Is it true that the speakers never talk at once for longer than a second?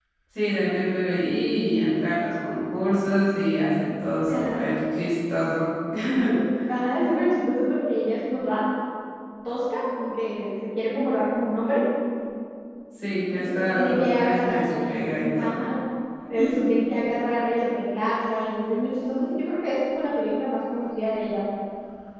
No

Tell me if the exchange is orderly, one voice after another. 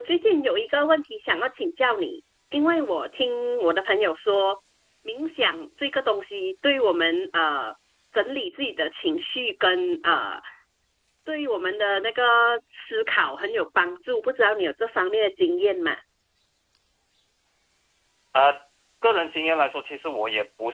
Yes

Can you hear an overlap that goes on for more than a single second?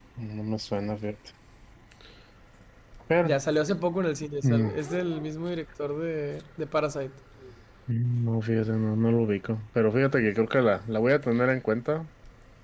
No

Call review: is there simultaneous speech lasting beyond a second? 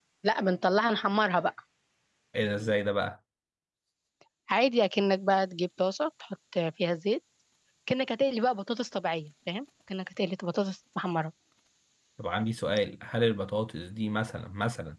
No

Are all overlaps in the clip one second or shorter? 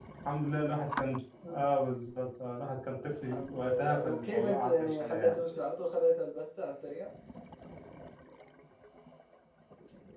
No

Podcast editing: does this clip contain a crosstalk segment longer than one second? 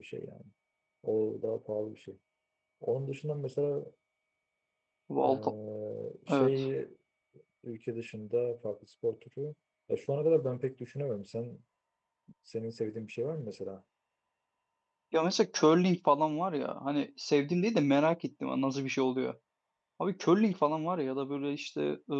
No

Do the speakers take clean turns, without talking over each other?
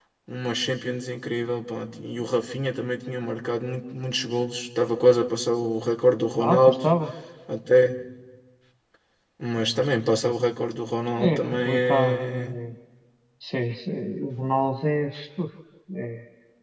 No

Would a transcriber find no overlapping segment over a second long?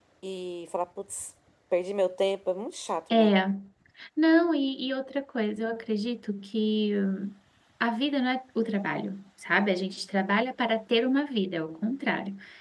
Yes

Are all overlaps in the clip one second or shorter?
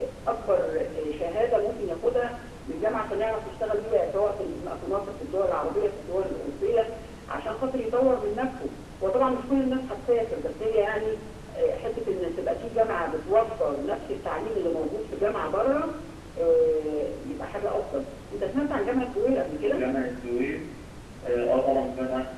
Yes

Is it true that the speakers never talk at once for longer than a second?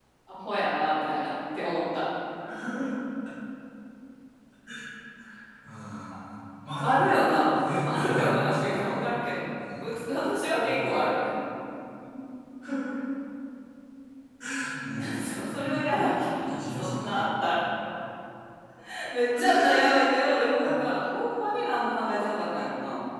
No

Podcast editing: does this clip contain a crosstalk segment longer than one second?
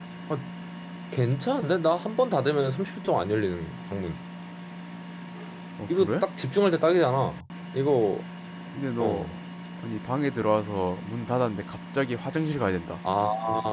No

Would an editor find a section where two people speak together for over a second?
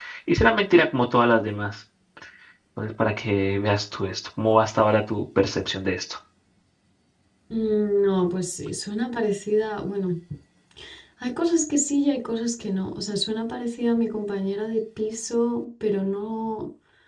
No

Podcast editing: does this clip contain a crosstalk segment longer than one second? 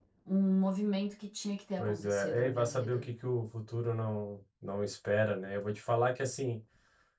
Yes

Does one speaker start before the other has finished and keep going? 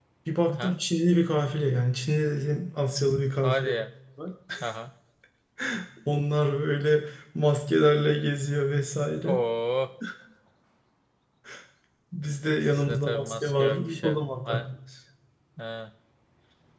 Yes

